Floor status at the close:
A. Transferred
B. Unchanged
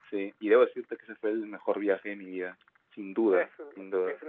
A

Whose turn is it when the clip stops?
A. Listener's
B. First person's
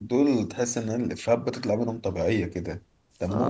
A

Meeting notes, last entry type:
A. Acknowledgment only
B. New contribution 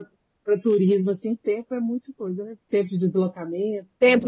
B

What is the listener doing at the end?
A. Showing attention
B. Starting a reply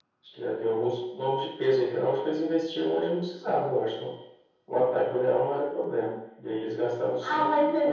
B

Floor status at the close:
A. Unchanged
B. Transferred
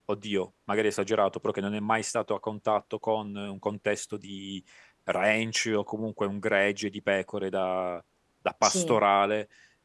A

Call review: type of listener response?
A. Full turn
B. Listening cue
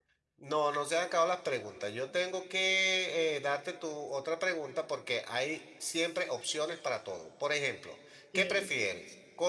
B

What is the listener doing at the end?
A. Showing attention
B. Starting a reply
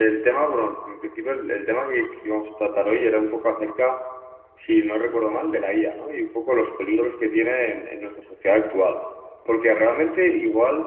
A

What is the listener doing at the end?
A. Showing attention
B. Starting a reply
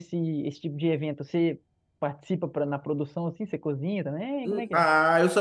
B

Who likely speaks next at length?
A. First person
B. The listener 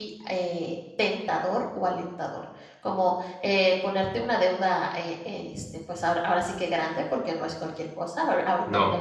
A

